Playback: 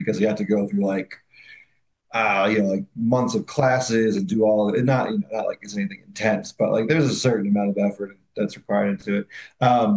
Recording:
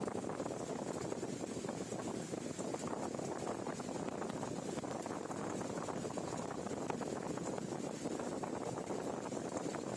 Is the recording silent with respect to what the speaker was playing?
Yes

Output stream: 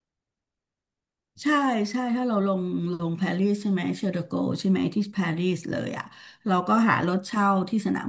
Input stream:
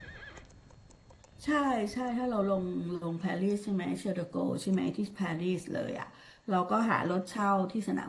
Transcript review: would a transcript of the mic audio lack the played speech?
No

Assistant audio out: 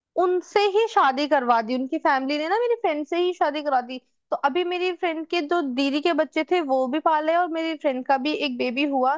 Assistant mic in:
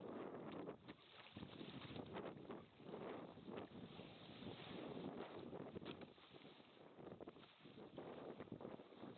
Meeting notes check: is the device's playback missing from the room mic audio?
Yes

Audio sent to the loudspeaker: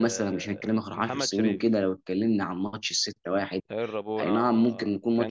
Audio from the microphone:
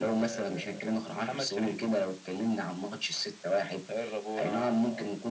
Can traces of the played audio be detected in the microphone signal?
Yes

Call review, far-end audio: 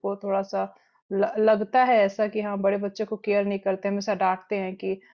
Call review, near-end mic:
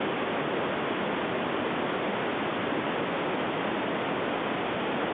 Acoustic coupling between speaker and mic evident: No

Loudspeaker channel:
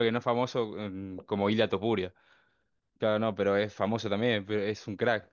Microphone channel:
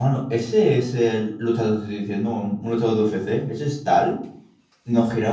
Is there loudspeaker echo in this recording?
No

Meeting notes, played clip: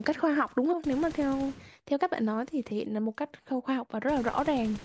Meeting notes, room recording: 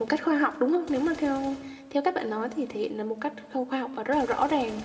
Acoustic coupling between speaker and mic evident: Yes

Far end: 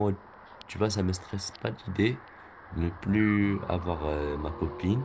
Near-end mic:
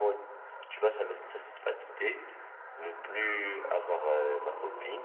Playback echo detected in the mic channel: Yes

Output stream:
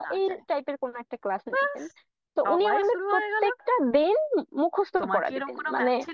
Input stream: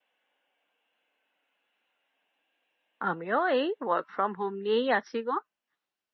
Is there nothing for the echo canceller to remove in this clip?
Yes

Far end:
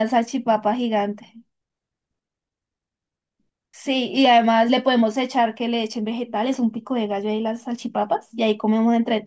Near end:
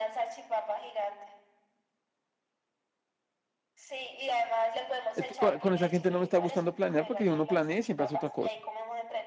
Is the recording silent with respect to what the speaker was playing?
No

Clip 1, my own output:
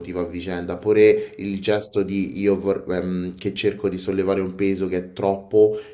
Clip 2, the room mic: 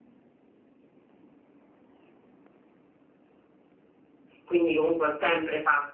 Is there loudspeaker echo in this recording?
No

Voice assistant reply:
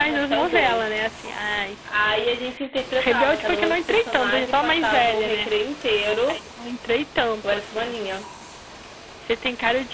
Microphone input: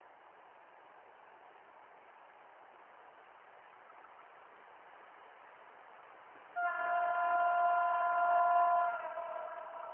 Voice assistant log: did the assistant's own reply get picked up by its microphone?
No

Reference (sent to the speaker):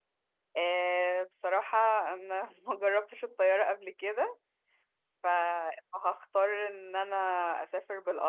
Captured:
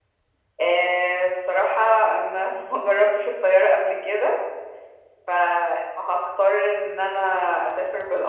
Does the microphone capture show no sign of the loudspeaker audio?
No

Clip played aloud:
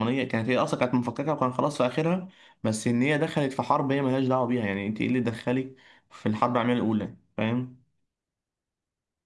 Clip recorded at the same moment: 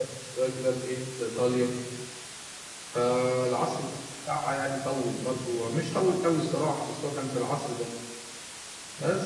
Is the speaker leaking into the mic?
No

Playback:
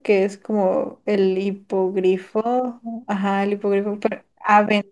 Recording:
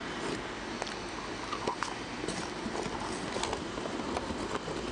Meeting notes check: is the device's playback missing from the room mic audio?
Yes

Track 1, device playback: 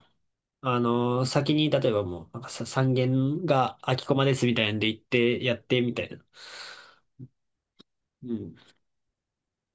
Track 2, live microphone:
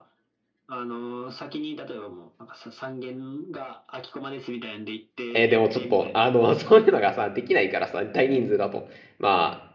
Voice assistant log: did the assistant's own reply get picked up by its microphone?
Yes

